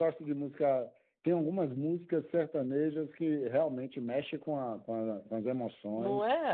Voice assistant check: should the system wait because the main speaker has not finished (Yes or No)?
No